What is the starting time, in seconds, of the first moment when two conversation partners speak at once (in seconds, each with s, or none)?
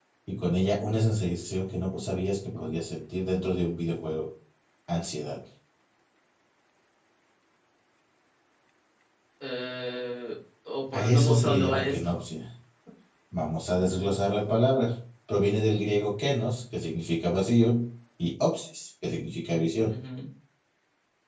10.9 s